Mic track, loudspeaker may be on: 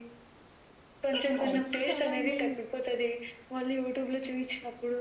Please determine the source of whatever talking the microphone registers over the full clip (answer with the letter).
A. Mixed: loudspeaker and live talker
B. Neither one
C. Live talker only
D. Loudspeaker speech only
A